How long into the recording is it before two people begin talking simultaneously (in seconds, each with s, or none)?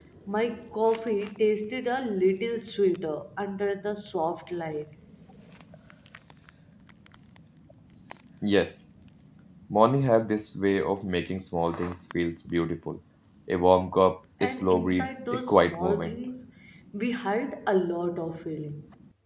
14.4 s